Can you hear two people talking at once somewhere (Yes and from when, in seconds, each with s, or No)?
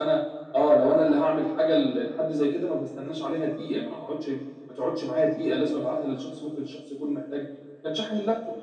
No